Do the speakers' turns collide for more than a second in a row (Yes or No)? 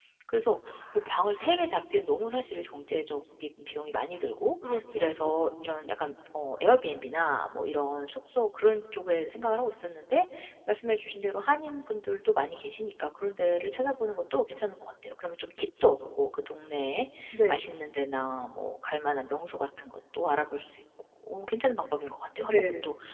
No